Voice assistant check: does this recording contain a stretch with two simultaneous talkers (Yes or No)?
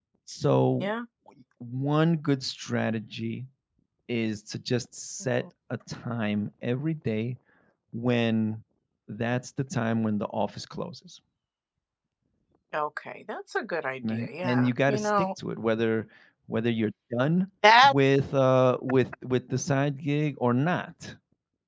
Yes